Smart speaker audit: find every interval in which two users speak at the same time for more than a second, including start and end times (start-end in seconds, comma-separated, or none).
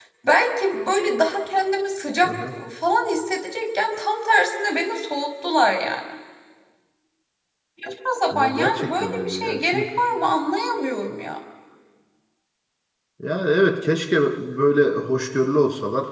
8.3-9.9